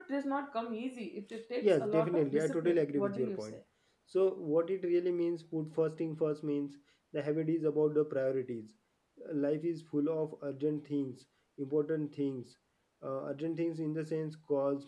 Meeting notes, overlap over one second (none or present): present